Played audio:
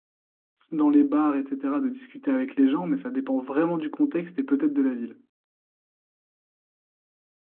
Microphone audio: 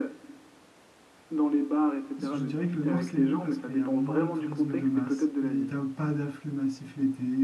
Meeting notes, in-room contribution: present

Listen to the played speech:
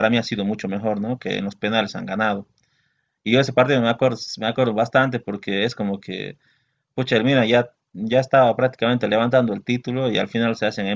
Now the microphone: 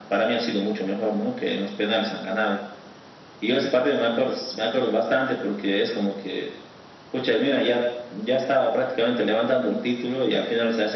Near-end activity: none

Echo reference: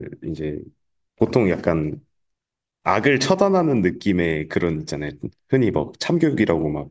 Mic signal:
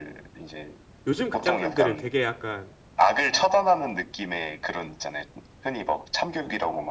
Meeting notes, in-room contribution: present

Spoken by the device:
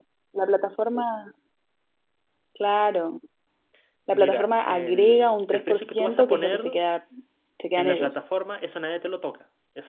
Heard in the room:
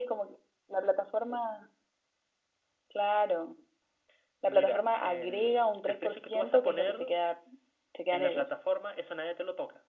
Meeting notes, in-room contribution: none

